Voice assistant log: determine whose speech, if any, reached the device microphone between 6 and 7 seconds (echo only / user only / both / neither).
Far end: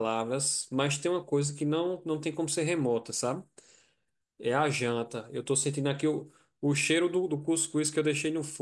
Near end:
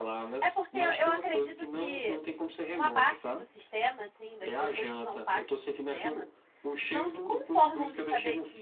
both